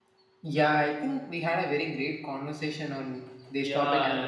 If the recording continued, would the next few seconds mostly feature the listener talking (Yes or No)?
Yes